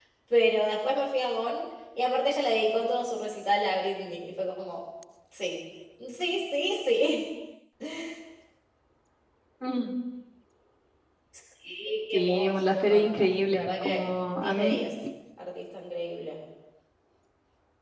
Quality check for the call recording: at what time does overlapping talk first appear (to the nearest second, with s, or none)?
12 s